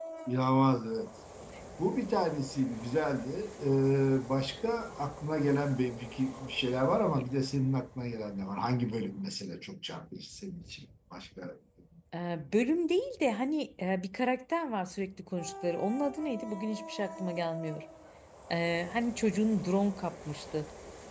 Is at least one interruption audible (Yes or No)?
No